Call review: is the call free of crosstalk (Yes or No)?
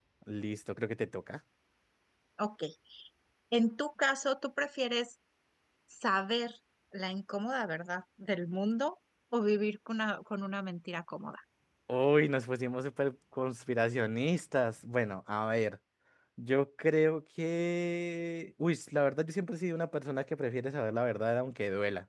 Yes